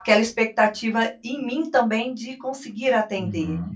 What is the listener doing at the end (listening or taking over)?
taking over